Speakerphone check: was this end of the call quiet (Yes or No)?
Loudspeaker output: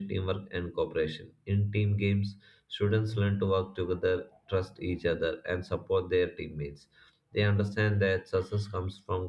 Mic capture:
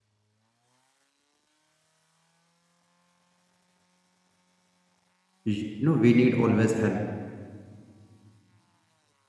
No